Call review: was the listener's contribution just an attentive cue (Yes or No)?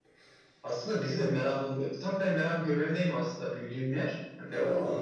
Yes